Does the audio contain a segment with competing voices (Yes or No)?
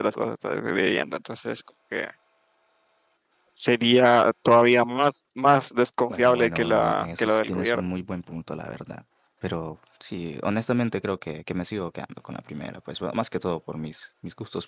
Yes